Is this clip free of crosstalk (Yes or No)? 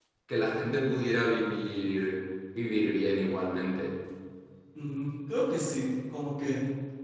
Yes